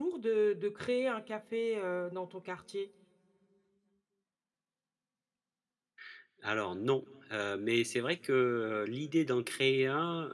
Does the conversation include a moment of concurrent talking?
No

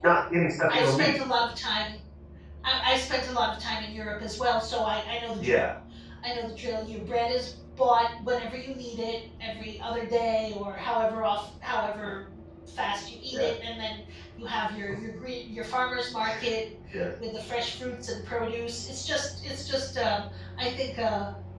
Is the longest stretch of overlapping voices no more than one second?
Yes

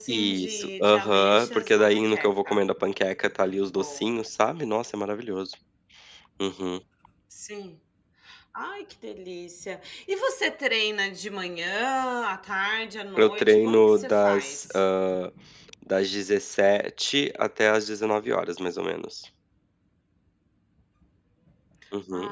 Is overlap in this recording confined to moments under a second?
No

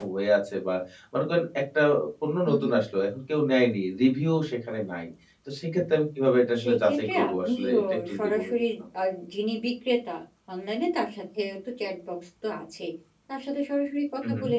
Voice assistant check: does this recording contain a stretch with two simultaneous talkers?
Yes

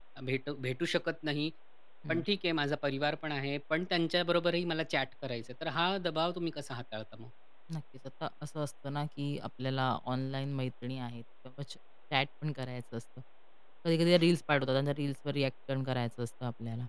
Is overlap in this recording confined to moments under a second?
Yes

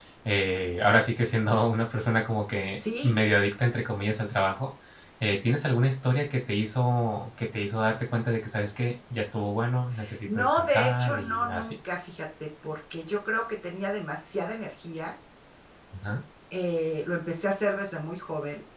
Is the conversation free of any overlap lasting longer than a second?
No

